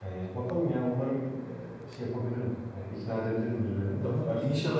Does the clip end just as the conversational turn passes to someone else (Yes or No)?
Yes